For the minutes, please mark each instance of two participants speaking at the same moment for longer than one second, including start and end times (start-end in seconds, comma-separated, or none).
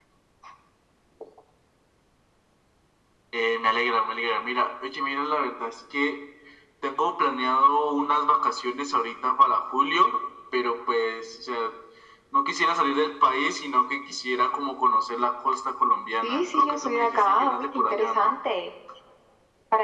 16.2-18.4